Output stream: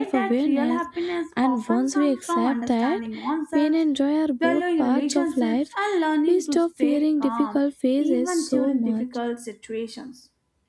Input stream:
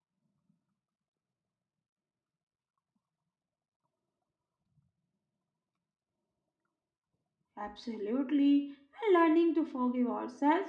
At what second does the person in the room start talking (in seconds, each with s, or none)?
7.6 s